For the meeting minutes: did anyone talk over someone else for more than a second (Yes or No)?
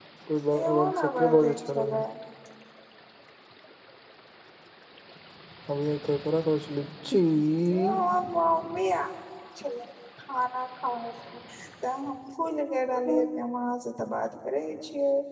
Yes